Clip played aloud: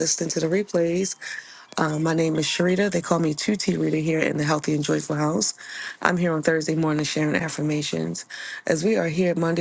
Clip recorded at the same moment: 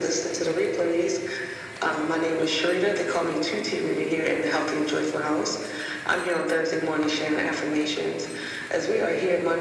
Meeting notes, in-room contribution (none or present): none